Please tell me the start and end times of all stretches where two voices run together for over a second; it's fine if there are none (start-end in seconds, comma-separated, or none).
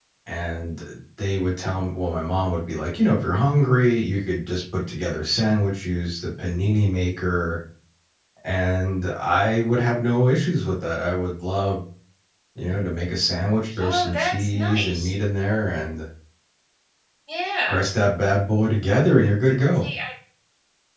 13.8-15.1